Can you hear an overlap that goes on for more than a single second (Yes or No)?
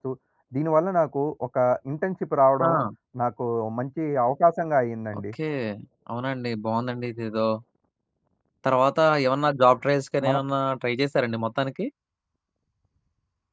No